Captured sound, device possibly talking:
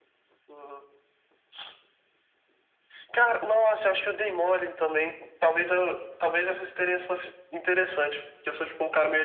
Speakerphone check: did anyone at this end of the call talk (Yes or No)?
No